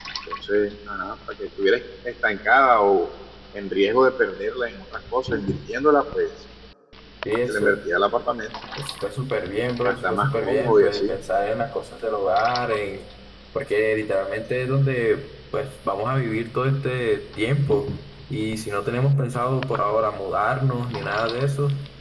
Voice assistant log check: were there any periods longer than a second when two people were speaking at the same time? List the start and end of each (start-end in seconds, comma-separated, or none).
9.8-11.2